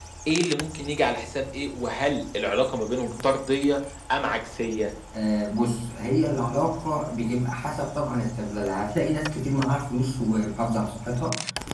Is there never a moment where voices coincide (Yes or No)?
Yes